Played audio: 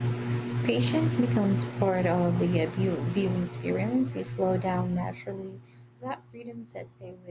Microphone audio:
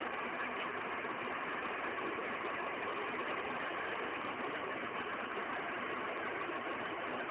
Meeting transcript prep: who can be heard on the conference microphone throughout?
neither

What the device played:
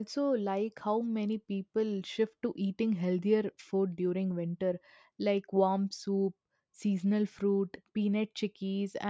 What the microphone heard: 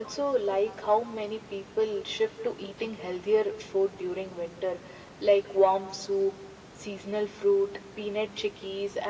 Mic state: echo only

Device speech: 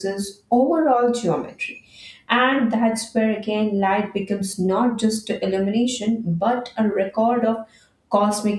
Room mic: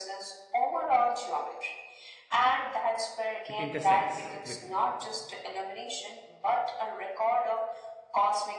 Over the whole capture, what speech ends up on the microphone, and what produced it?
both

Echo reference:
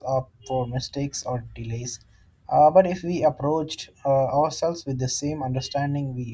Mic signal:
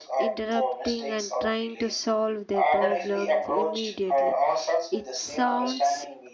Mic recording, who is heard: both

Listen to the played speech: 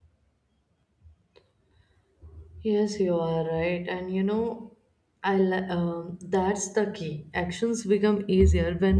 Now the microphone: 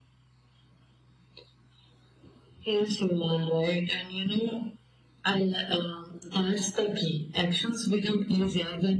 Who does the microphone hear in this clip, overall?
echo only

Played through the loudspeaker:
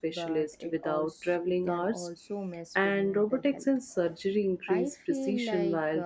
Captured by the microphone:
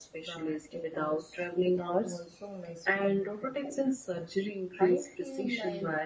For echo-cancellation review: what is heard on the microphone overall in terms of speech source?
echo only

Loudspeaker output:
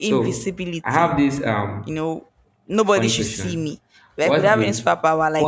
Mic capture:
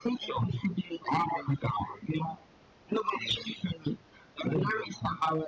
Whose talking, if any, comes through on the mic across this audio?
echo only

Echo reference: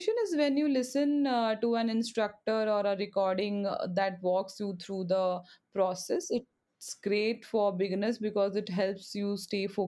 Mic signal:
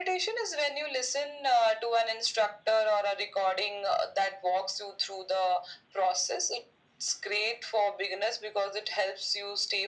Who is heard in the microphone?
echo only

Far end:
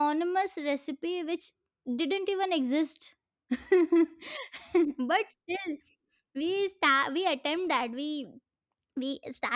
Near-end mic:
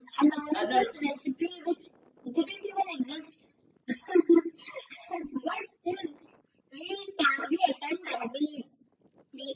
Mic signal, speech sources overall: both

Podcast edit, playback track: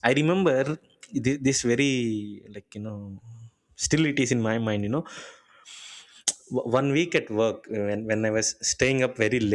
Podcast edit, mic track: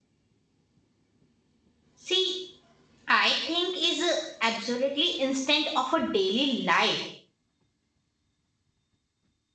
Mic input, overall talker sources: user only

